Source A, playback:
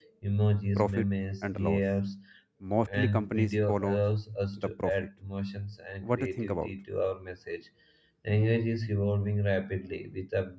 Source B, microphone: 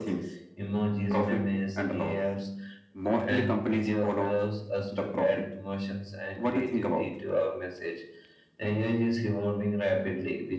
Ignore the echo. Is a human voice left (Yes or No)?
No